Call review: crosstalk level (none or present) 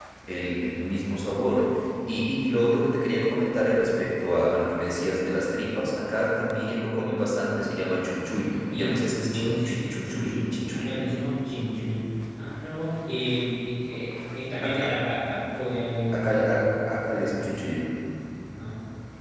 present